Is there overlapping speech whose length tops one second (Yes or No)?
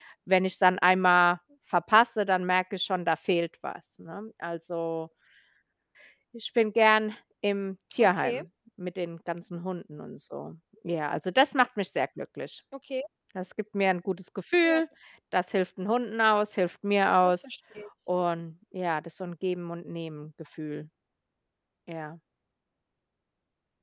No